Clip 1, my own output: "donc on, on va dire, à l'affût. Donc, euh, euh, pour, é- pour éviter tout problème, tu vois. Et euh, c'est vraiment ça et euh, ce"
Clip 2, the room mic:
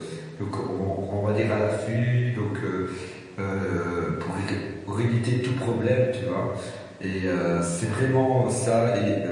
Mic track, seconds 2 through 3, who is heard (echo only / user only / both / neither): echo only